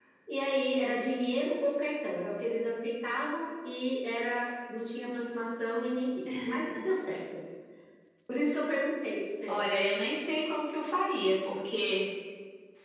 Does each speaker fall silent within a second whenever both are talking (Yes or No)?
Yes